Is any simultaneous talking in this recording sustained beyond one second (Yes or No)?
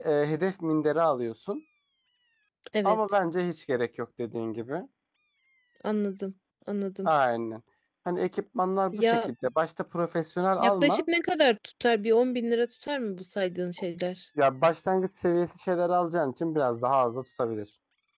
No